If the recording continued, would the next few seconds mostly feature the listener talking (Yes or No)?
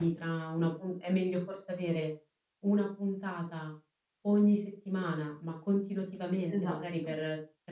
No